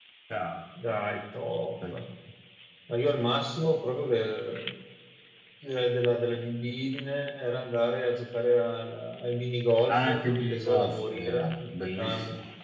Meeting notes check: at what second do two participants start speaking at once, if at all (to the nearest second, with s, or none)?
10 s